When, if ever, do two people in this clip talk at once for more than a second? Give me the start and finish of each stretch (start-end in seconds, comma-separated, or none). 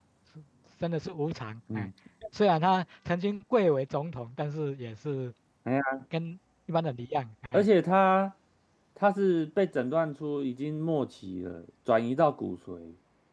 none